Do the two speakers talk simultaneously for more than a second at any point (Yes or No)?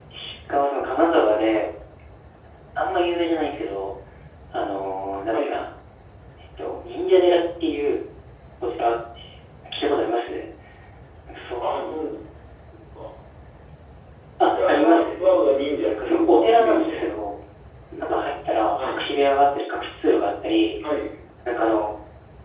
Yes